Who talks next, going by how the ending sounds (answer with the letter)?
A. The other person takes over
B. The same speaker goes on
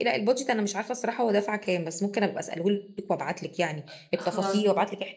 B